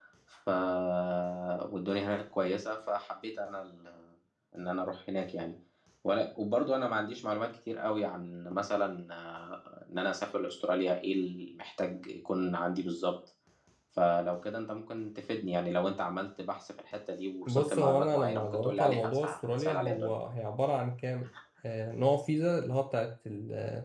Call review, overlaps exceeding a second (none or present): present